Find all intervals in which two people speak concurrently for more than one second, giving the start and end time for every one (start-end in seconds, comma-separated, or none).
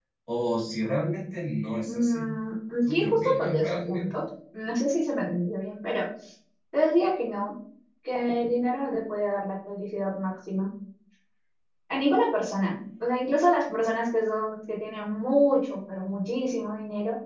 2.9-4.1